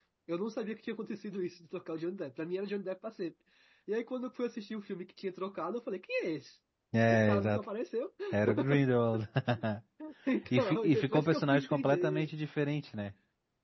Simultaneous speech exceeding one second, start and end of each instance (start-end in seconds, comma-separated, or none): 10.6-12.3